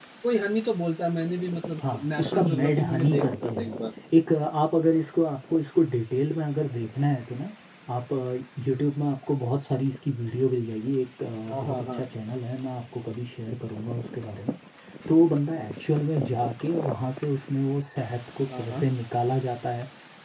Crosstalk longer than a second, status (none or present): present